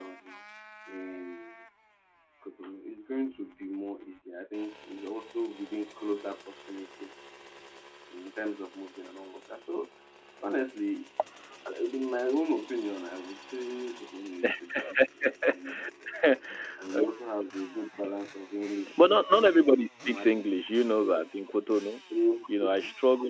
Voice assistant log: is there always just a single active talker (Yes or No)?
No